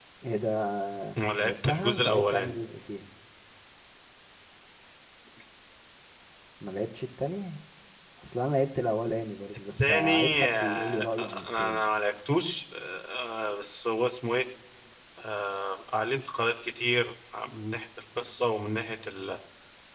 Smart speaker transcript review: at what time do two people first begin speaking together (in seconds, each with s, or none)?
1.4 s